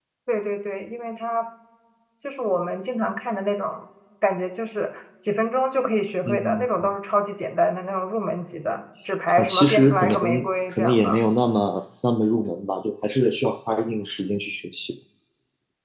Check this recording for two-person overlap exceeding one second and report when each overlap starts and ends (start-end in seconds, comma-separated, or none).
9.3-11.2